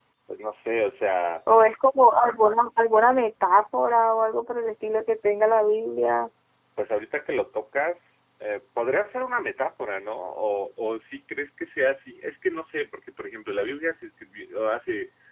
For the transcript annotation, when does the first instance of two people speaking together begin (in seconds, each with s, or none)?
none